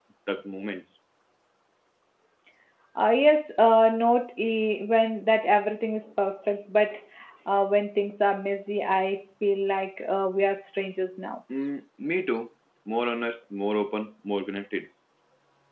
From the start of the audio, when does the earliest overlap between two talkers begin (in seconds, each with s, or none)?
none